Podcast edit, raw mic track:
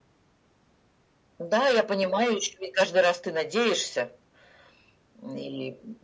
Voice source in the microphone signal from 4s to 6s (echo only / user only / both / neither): echo only